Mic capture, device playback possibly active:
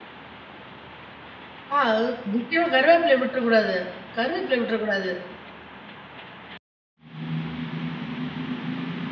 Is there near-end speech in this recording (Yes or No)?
Yes